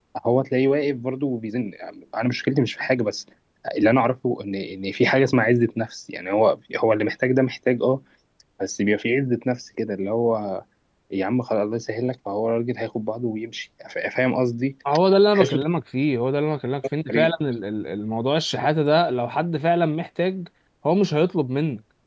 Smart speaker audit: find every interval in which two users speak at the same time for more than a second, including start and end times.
none

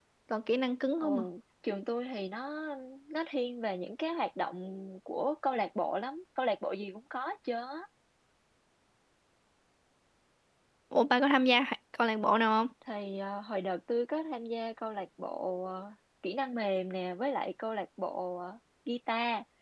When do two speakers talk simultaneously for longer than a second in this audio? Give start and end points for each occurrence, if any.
none

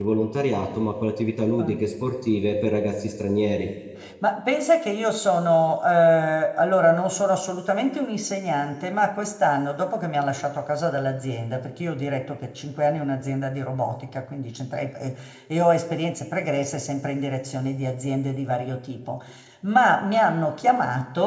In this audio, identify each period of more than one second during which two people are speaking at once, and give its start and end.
none

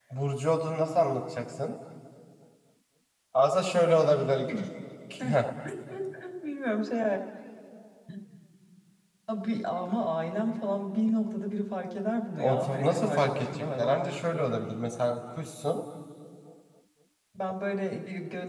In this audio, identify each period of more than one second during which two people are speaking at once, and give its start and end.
12.4-14.6

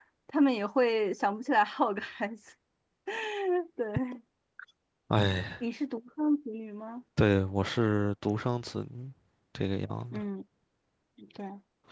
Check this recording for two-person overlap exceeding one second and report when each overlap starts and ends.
none

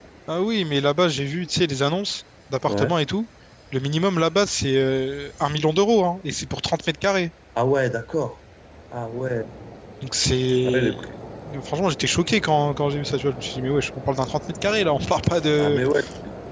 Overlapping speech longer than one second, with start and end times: none

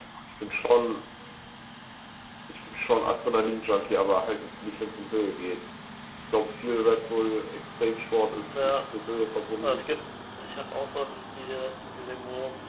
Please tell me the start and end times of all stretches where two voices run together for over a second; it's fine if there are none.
none

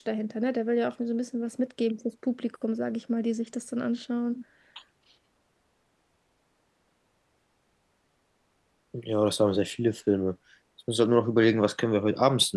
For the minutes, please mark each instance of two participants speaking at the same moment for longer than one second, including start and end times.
none

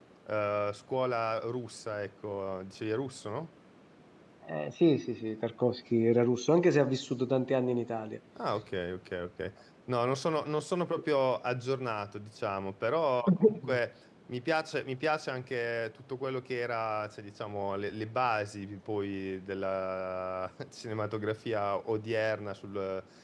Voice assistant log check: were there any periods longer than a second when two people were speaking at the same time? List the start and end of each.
none

